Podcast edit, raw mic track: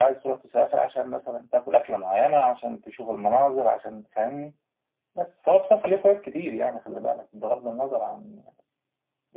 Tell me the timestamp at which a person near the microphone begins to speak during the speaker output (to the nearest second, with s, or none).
none